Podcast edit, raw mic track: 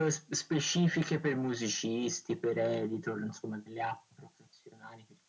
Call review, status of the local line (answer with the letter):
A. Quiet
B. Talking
A